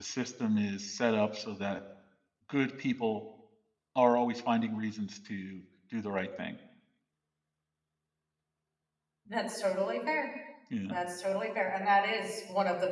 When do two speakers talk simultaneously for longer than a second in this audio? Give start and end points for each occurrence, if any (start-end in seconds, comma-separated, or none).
none